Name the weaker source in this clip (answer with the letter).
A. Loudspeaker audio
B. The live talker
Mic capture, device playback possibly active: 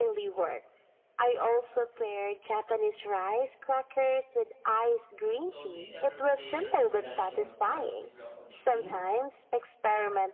B